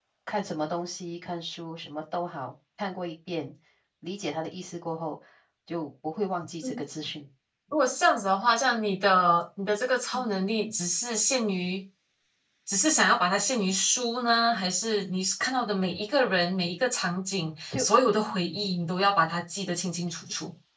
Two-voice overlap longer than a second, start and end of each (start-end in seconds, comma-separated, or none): none